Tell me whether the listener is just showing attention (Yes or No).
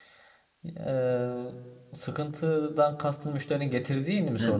No